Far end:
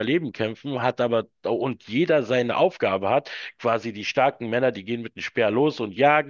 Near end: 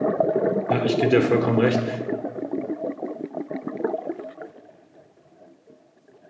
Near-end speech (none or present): present